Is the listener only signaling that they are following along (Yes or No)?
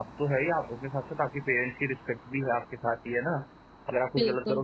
Yes